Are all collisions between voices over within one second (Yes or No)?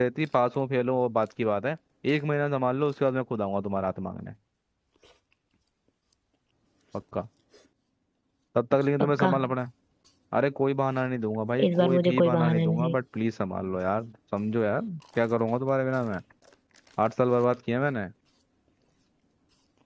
No